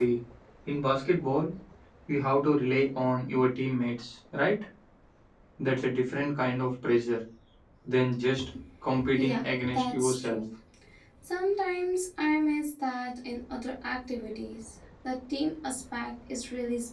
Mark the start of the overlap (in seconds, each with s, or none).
9.2 s